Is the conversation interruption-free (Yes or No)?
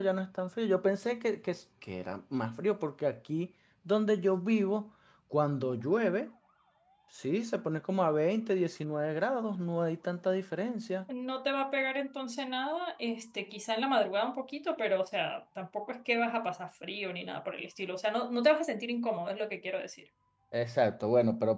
Yes